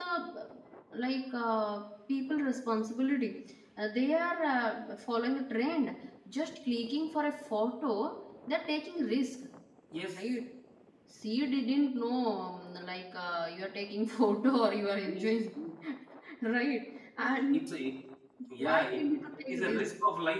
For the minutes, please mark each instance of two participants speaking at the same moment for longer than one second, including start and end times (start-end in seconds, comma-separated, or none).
18.6-19.8